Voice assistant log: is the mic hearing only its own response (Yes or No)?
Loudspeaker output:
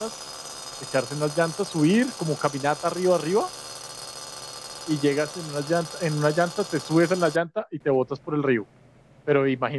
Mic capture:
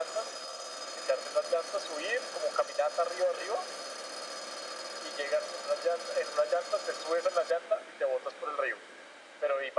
Yes